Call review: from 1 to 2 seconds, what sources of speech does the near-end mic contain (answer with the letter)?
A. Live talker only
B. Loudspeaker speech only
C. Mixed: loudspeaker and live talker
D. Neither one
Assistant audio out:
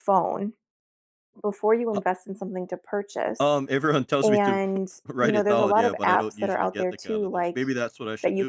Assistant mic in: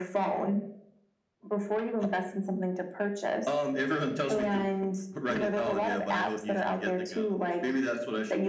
B